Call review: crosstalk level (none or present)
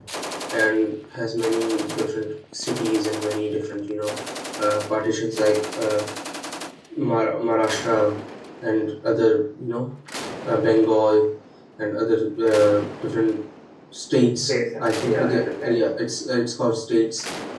present